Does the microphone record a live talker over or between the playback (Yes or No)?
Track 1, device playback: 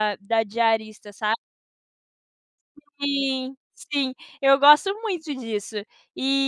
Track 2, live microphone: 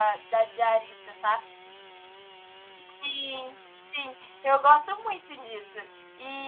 No